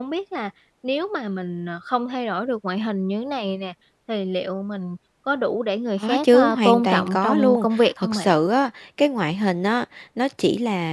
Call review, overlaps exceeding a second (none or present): present